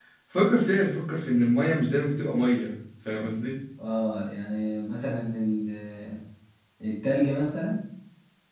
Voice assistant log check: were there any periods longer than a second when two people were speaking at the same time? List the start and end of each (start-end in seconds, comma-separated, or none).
none